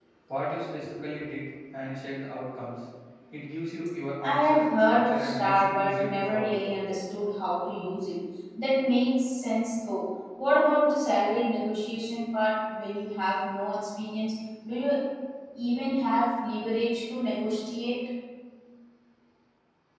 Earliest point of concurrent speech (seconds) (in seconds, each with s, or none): 4.2 s